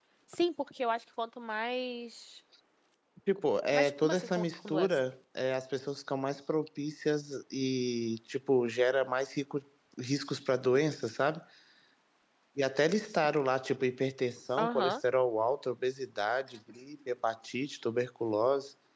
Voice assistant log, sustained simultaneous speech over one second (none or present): present